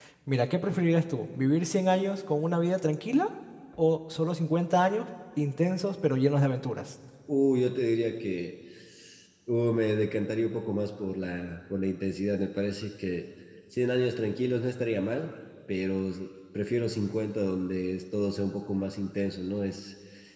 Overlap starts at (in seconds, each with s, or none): none